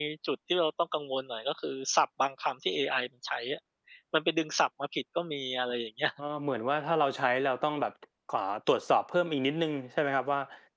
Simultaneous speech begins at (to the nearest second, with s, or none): none